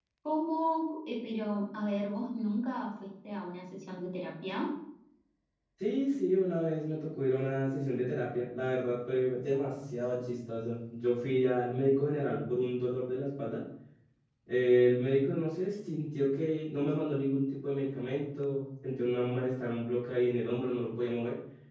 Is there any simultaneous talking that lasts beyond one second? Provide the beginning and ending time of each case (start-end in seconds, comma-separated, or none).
none